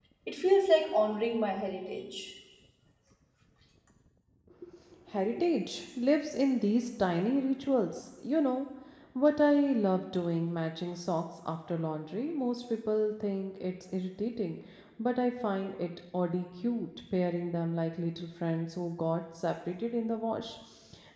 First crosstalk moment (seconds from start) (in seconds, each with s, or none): none